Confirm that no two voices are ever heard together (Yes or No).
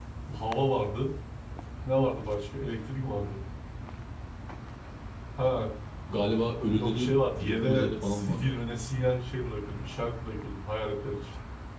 No